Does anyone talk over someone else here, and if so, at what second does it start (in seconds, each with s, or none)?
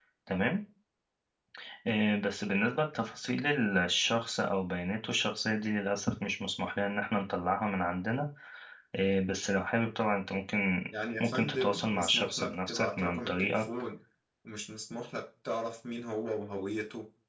11.2 s